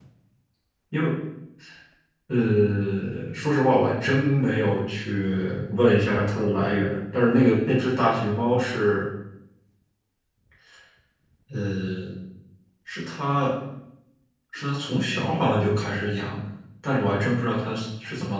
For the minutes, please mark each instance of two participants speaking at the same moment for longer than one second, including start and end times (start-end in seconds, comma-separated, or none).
none